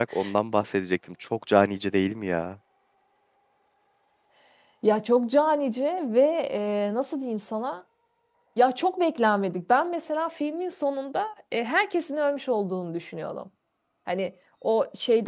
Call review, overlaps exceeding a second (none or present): none